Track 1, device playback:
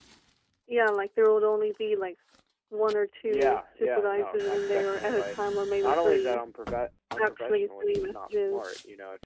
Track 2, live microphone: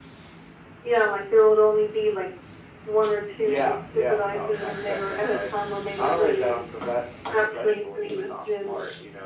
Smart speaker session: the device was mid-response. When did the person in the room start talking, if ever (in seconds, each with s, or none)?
none